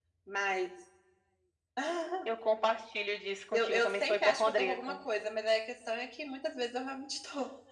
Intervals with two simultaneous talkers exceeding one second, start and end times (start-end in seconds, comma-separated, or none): 3.5-5.0